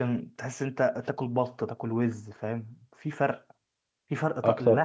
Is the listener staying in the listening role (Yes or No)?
Yes